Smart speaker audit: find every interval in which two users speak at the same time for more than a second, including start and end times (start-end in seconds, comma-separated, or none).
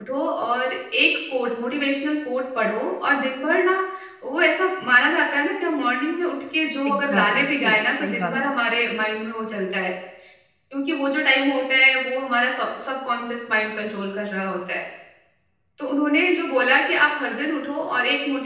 6.9-8.6